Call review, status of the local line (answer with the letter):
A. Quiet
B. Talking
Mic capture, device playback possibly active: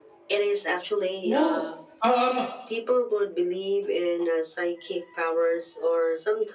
B